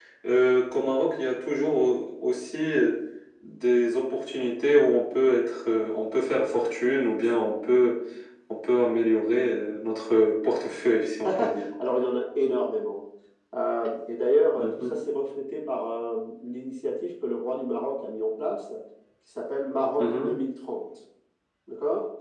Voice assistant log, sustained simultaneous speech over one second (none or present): none